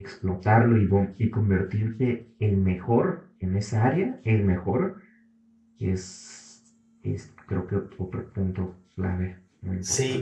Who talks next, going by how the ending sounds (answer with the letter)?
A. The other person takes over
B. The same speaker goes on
A